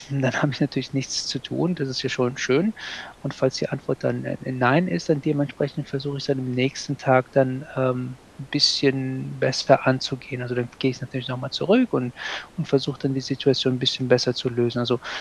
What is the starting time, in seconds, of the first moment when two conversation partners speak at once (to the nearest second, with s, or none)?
none